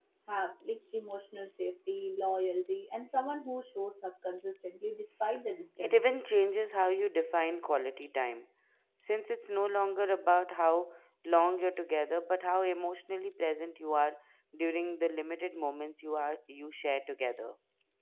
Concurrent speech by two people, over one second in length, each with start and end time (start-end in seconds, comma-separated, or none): none